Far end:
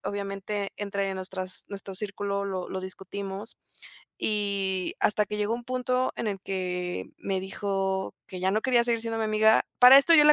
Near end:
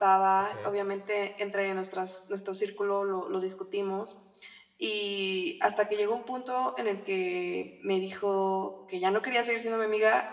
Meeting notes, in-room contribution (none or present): present